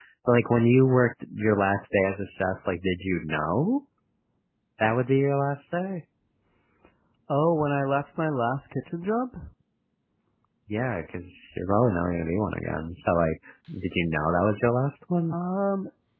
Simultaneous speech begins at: none

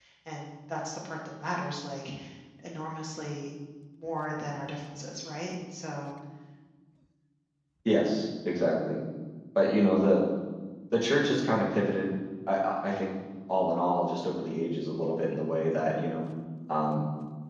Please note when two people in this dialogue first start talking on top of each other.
none

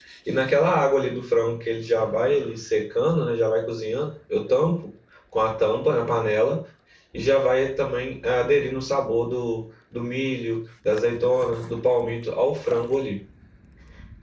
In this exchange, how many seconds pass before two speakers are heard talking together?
none

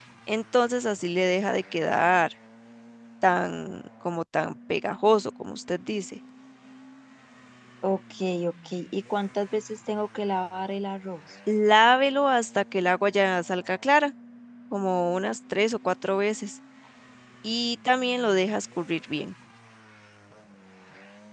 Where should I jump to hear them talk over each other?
none

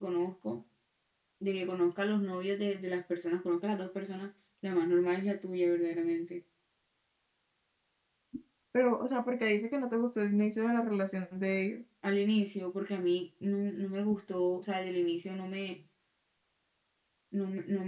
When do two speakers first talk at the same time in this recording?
none

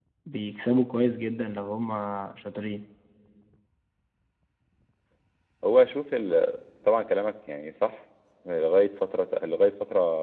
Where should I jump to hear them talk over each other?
none

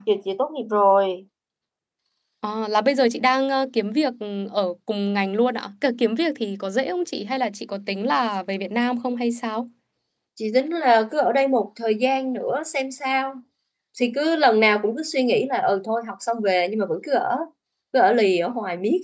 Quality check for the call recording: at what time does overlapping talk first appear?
none

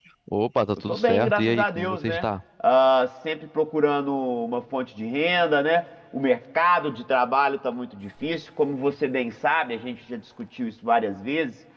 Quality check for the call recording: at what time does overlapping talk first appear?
0.9 s

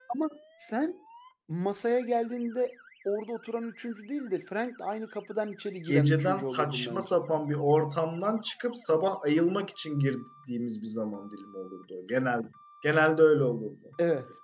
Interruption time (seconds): 5.9 s

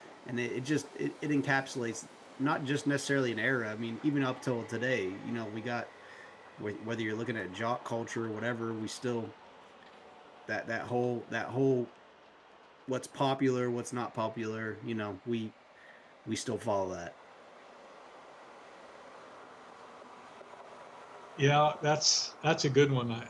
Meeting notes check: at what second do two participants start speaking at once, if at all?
none

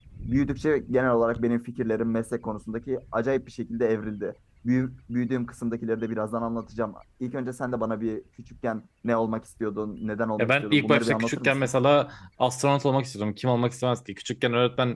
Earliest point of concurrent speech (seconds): 10.4 s

